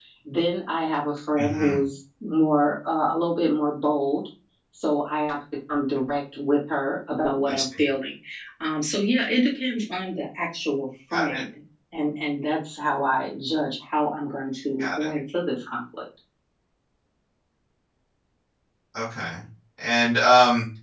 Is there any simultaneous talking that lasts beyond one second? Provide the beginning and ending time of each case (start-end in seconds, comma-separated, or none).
none